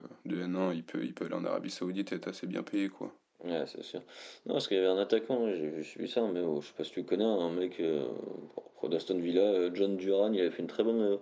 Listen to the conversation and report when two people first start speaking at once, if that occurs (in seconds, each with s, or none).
none